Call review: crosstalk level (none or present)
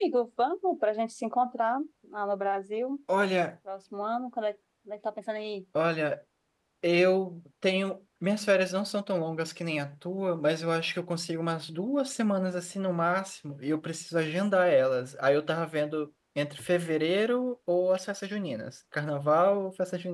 none